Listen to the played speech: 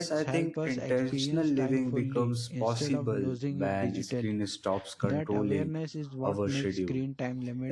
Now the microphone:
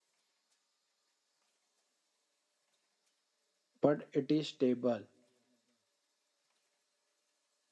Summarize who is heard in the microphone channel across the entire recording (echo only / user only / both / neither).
user only